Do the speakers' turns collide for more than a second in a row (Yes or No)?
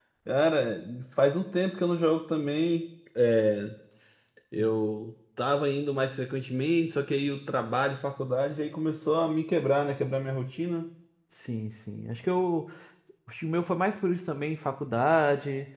No